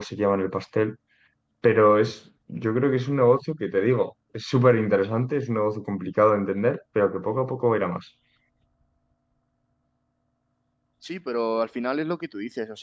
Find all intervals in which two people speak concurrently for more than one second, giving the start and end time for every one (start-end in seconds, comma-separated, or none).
none